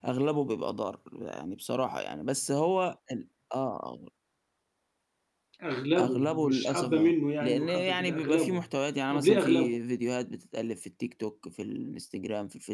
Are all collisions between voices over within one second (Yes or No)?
No